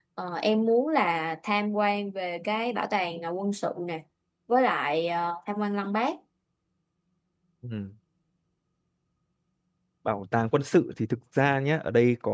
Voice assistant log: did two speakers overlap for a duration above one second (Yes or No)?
No